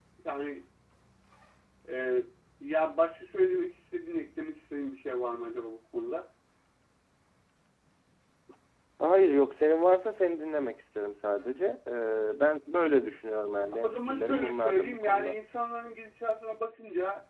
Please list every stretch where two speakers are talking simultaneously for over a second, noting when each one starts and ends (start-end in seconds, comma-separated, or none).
13.8-15.3